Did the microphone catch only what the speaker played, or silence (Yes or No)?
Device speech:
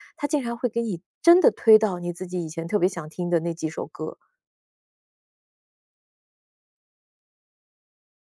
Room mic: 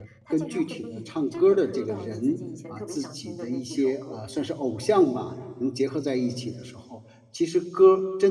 No